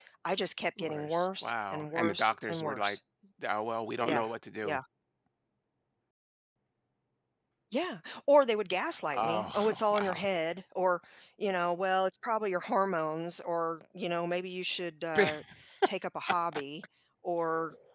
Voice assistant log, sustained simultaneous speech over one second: present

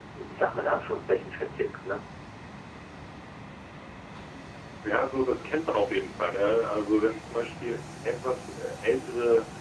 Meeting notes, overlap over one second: none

